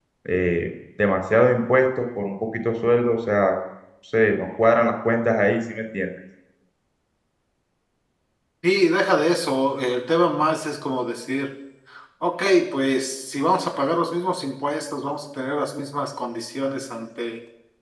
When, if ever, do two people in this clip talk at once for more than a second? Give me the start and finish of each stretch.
none

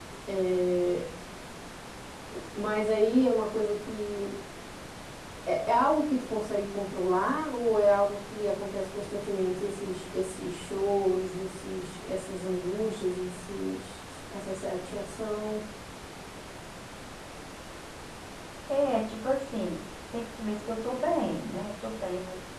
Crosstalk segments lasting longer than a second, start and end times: none

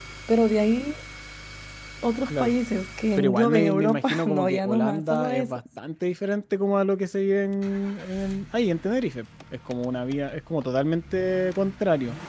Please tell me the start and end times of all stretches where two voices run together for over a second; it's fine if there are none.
3.2-5.6

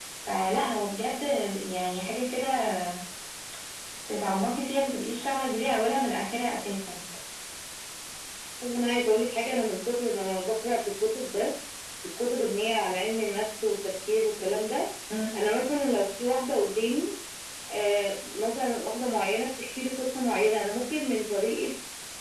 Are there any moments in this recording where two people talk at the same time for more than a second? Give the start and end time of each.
none

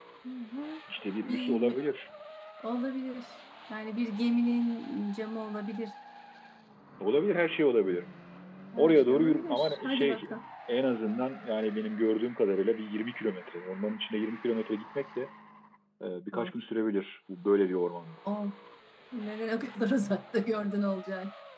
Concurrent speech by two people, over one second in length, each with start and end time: 8.8-10.3

